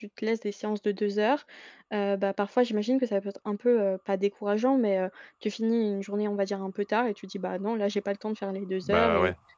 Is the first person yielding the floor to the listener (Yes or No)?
No